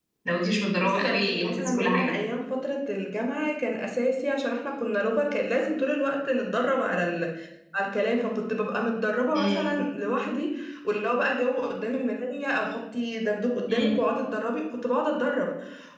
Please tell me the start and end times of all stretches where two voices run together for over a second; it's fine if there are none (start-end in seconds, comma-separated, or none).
0.8-2.1